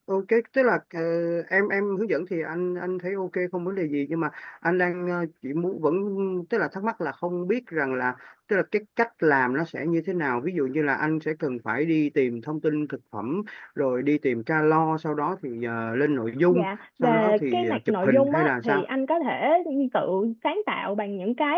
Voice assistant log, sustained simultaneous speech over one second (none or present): present